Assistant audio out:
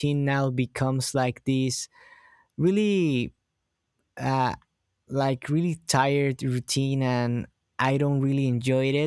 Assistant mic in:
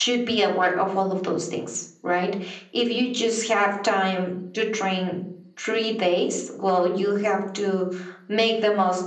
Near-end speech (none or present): present